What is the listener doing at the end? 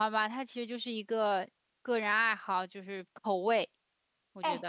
taking over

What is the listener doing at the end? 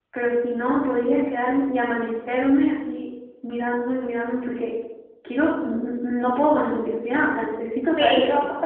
taking over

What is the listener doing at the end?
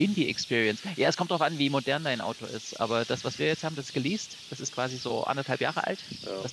listening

